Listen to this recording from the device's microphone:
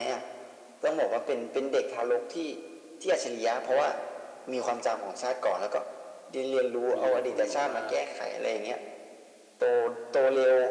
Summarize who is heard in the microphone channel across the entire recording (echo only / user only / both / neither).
both